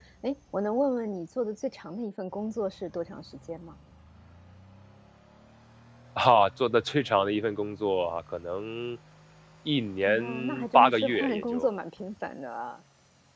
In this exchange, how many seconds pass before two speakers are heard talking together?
10.1 s

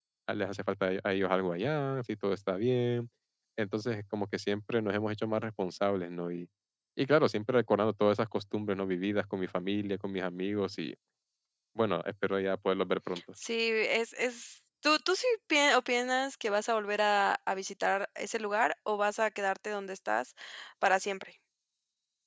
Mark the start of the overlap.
none

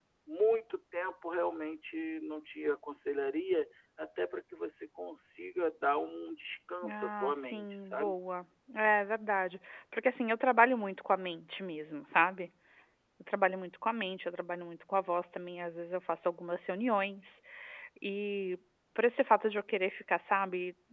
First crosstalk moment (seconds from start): 6.8 s

